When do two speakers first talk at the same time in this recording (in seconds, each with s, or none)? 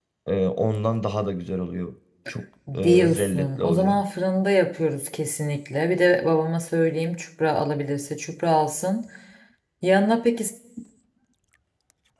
2.7 s